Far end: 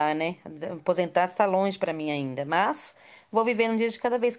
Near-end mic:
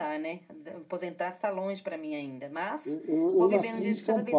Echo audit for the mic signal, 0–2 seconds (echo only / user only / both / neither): echo only